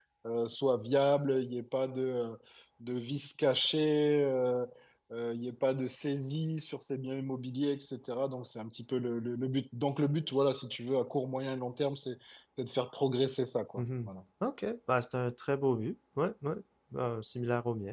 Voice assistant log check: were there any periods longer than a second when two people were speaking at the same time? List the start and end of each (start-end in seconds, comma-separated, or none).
none